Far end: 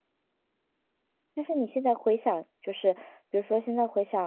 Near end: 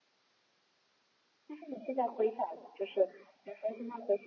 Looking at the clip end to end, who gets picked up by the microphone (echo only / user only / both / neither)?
echo only